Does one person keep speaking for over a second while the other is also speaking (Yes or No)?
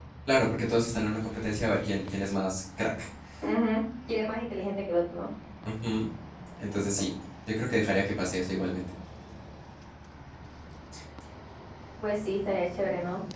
No